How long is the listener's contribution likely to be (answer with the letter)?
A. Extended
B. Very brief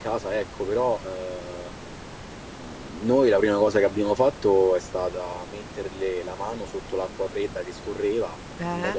B